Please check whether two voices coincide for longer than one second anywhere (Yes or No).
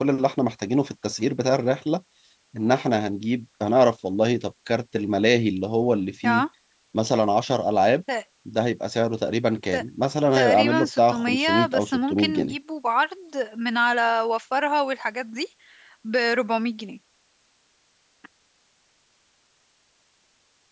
Yes